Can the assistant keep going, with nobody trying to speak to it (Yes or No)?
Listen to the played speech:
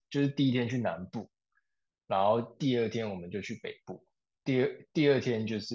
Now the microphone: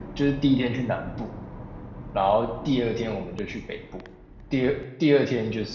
Yes